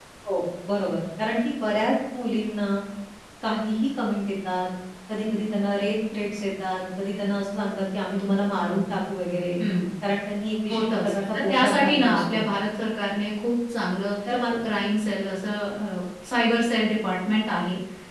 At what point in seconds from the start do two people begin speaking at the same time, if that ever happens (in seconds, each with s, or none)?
10.7 s